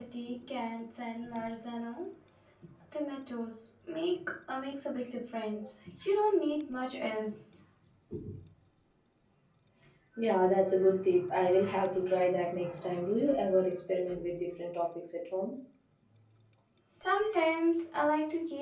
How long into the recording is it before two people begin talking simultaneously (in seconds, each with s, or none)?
none